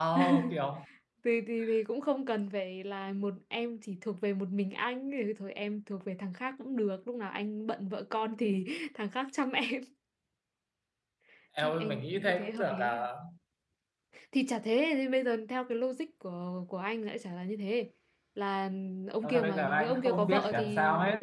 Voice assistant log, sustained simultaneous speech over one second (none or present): present